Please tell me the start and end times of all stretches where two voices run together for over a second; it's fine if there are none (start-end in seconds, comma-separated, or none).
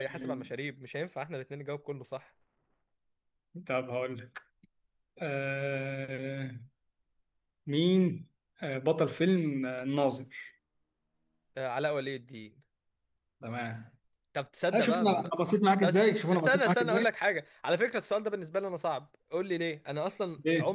15.8-17.1